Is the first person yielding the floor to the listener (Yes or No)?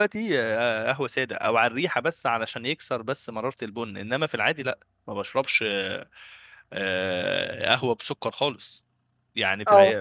No